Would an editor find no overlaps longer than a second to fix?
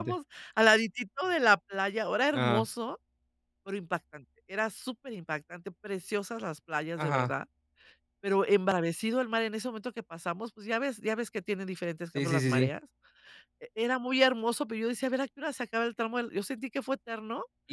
Yes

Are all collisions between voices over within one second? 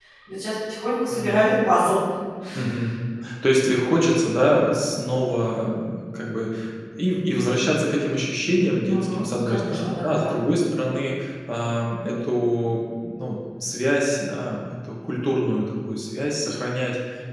No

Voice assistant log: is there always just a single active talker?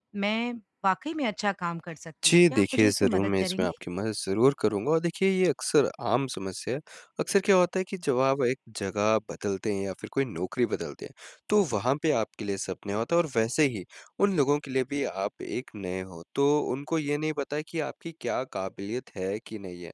No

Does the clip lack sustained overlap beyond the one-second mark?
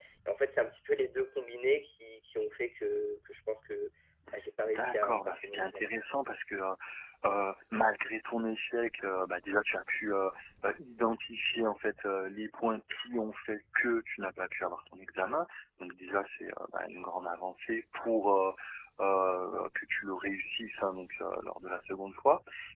No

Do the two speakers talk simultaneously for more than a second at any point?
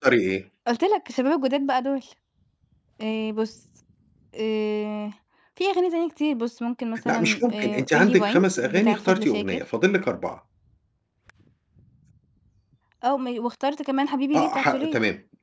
Yes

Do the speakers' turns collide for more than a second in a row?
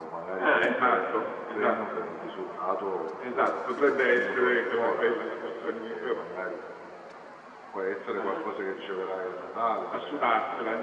Yes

